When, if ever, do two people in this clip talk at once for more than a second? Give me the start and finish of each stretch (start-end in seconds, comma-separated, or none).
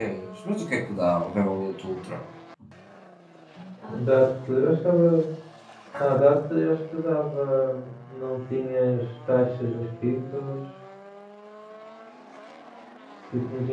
none